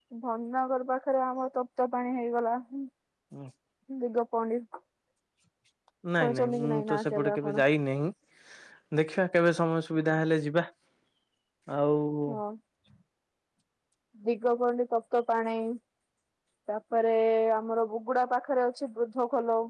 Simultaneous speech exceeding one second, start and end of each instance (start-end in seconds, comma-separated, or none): 6.2-7.6